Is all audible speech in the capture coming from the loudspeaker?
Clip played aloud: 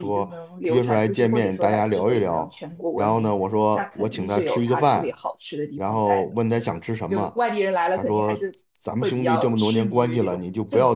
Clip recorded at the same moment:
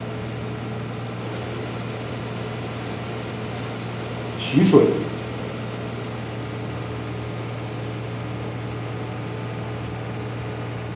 No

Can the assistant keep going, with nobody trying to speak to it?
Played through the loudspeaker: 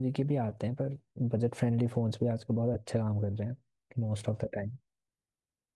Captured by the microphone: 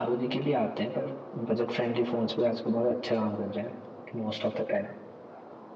Yes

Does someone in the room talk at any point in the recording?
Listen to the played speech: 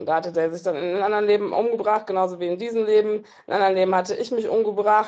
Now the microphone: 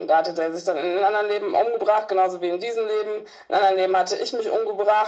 No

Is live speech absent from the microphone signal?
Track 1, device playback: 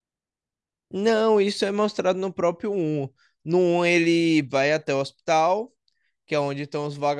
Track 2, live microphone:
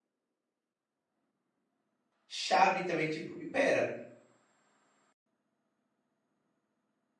No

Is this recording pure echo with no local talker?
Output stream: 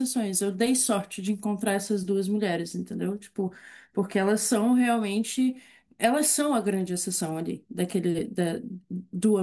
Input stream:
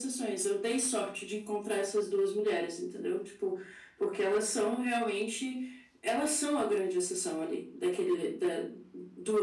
Yes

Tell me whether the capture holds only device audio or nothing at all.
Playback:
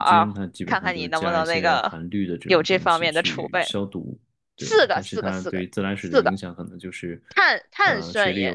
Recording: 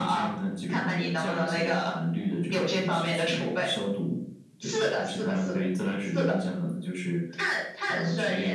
Yes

